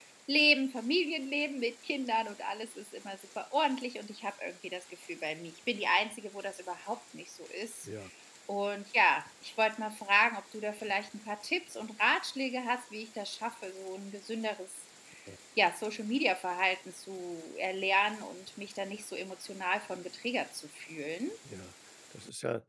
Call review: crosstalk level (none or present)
none